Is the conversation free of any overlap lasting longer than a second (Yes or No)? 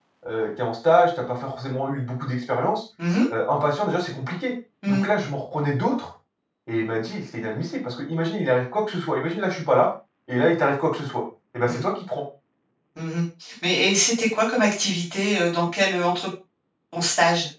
Yes